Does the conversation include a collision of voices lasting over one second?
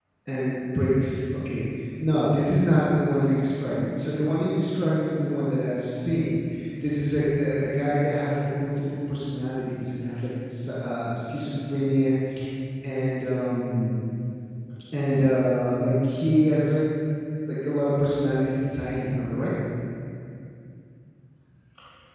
No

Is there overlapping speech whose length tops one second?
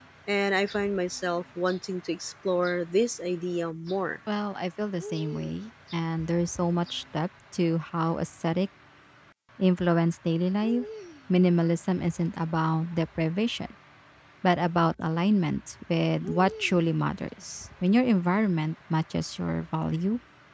No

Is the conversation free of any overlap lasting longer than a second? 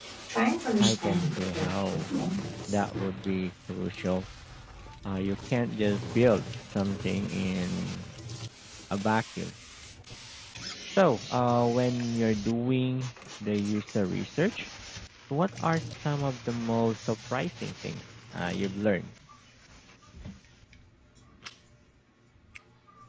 No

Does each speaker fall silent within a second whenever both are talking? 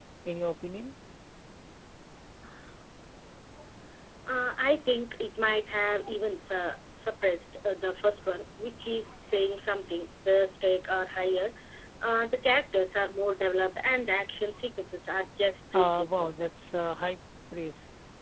Yes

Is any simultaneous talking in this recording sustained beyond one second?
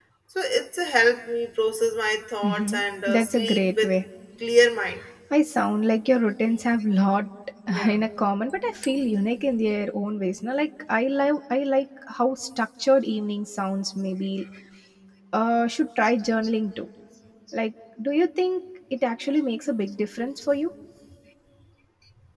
Yes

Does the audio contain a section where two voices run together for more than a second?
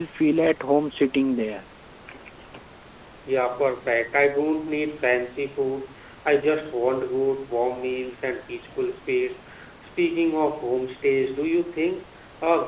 No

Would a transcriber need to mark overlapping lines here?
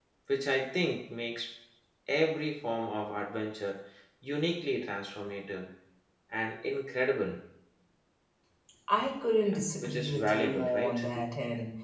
Yes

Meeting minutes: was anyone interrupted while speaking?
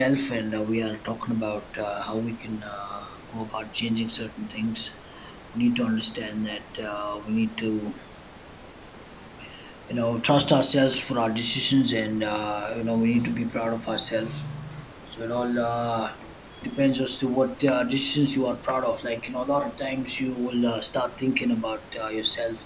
No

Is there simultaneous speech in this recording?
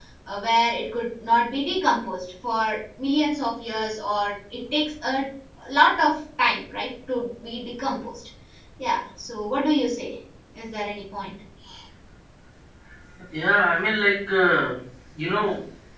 No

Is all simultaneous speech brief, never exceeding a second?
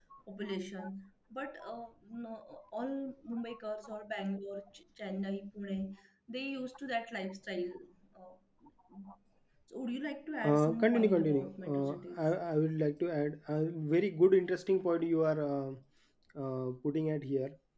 No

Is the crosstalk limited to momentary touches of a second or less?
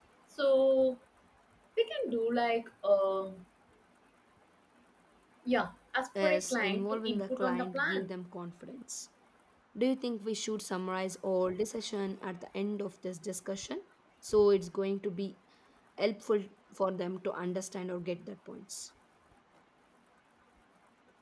No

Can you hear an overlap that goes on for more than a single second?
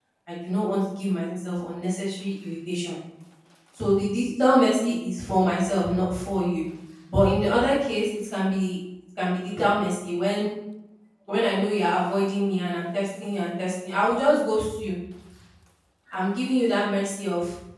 No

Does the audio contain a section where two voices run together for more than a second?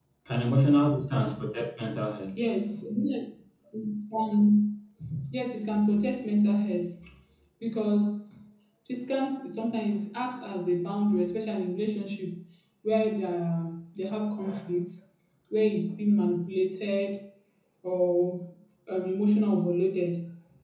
No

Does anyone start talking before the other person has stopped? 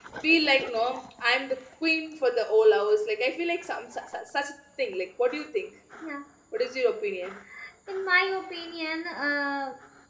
No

